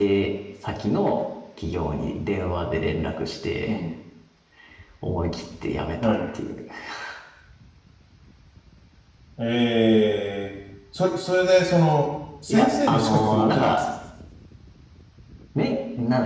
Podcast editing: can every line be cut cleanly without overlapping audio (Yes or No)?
No